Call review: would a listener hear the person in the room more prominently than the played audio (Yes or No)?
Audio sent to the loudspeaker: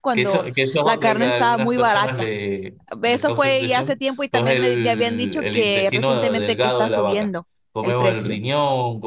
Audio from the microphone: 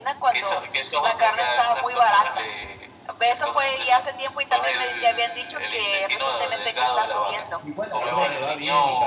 No